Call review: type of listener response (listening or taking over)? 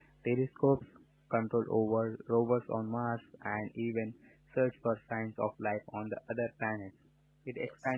listening